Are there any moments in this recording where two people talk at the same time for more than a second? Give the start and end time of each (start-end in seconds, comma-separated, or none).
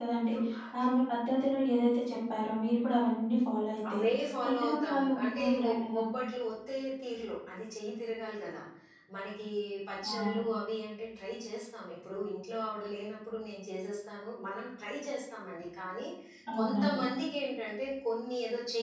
4.6-6.0